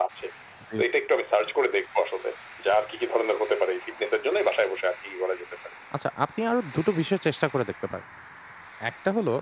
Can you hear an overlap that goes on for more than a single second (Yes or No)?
No